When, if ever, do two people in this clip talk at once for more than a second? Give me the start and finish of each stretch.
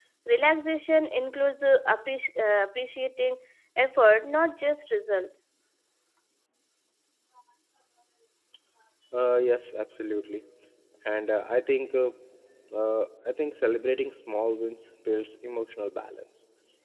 none

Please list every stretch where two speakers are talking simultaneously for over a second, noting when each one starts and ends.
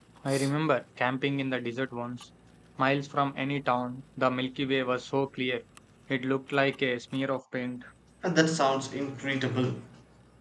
none

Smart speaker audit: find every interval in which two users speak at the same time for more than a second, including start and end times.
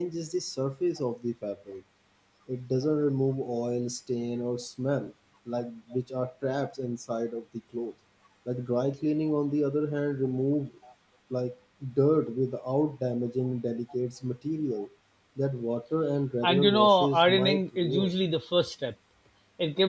16.4-18.1

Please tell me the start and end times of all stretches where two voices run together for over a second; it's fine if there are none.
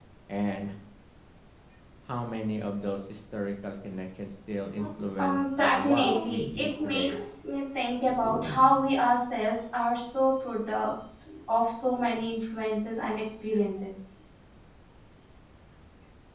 5.2-7.2

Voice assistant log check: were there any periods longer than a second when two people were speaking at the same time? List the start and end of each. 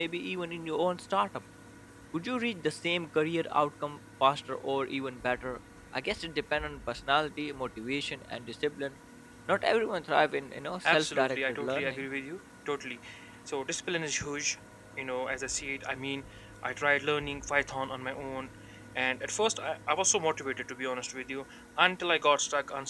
10.8-12.0

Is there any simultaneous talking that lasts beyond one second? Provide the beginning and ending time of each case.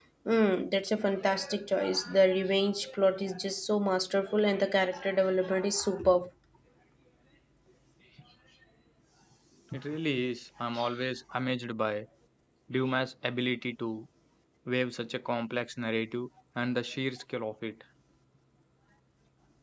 none

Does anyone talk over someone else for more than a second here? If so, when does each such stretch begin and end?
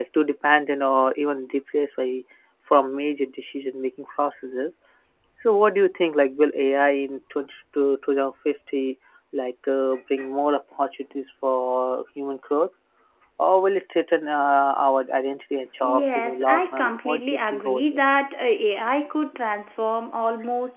15.8-18.0

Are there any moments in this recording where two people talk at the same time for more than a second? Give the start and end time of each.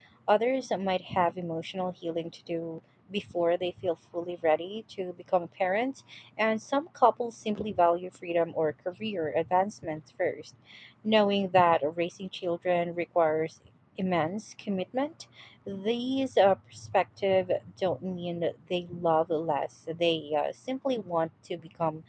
none

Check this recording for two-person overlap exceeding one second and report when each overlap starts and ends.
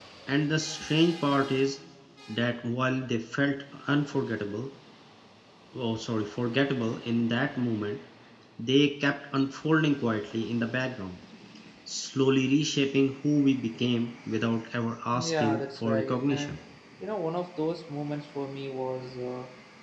15.1-16.6

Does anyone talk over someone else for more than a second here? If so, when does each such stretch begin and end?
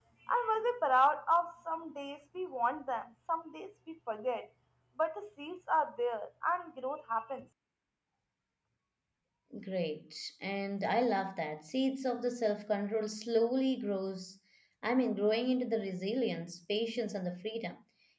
none

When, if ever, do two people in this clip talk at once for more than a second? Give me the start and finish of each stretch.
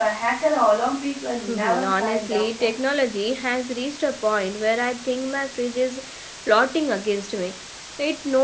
1.5-2.7

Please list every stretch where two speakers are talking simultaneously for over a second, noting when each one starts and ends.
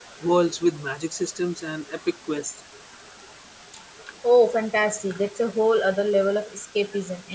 none

